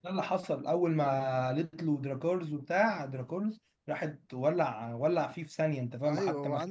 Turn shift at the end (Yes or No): Yes